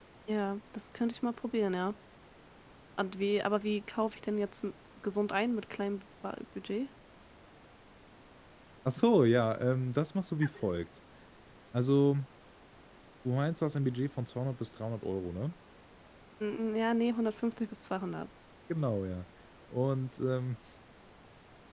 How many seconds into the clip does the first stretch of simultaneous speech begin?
none

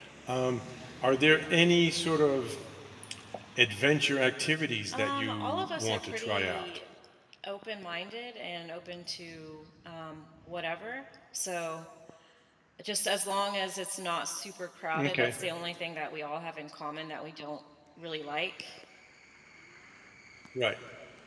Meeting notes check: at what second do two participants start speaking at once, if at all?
4.9 s

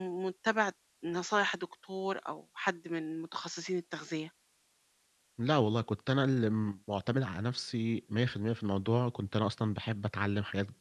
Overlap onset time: none

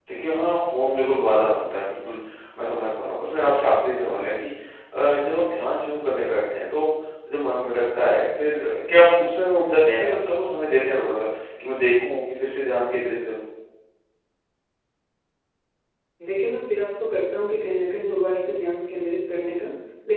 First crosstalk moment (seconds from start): none

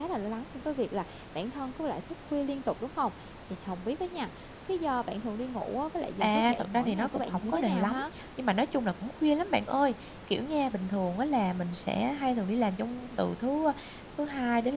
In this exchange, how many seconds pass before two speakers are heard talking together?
6.2 s

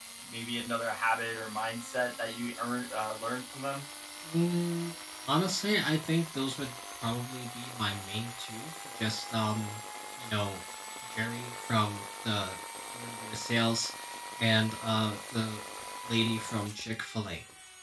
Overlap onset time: none

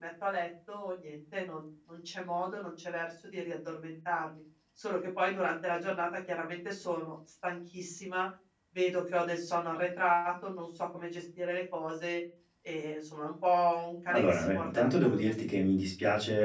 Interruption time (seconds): 14.1 s

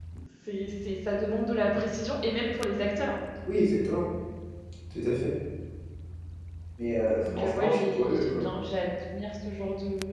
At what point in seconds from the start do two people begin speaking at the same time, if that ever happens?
7.1 s

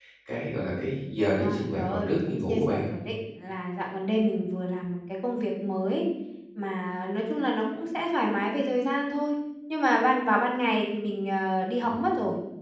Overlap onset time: 1.3 s

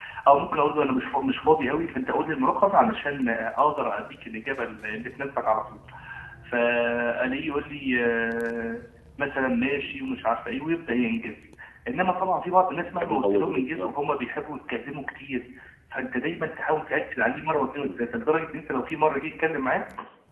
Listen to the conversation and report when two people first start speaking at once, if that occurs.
12.7 s

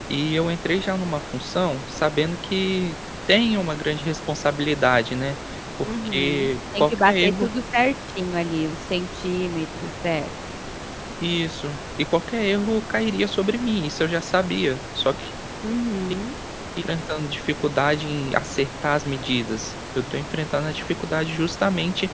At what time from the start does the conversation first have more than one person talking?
5.8 s

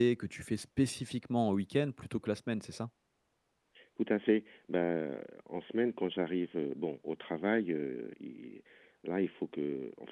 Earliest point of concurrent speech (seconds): none

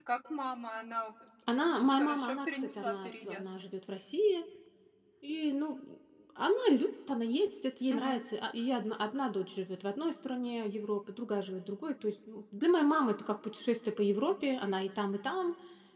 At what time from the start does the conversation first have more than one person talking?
1.5 s

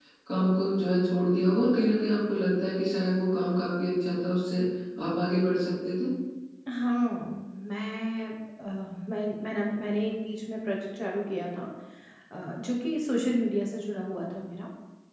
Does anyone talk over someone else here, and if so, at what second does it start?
none

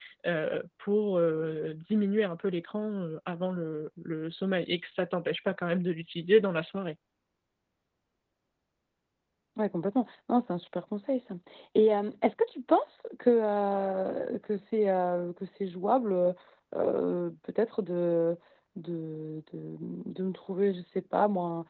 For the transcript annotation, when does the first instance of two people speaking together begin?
none

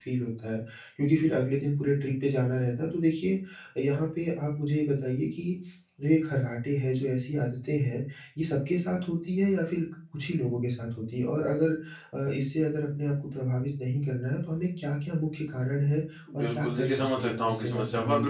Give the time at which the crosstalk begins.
16.3 s

